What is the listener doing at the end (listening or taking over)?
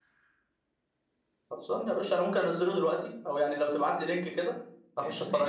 taking over